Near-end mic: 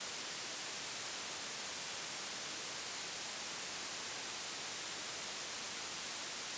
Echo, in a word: none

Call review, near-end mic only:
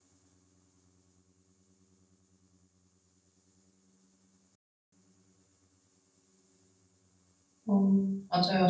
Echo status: none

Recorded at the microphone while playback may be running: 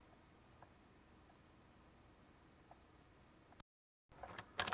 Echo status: none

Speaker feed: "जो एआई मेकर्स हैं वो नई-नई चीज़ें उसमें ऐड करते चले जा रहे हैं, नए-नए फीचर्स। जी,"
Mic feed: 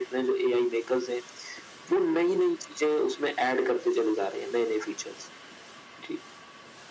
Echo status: present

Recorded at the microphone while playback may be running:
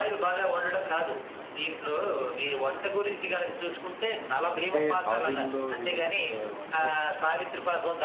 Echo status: present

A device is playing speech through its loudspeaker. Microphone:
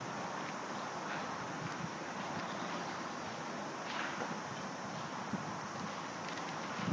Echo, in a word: none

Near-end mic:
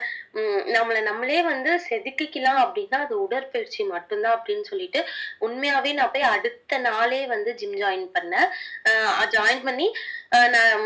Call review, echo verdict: present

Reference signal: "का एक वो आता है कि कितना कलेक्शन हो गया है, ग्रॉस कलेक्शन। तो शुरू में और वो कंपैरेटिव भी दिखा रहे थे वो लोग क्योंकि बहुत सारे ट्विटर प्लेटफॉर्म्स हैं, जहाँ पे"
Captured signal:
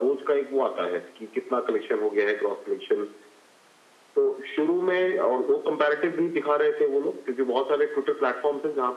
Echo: present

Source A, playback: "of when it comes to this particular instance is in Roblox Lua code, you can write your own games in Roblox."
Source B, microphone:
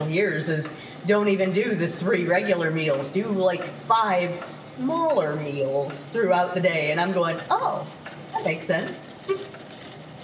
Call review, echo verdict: none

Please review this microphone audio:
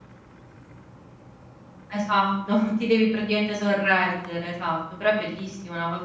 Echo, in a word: none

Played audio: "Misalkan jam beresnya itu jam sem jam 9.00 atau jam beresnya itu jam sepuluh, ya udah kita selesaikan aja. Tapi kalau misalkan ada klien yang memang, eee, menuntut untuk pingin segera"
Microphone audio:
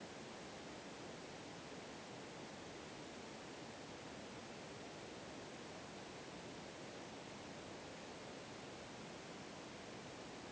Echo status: none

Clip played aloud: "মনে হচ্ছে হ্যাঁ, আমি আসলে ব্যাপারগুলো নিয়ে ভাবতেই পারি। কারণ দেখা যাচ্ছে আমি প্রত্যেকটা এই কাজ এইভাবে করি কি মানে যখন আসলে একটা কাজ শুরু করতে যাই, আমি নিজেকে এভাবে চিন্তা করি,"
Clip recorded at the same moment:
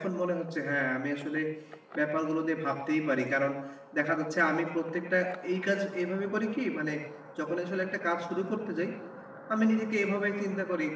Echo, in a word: present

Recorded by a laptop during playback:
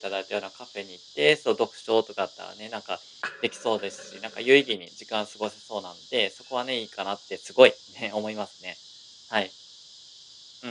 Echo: none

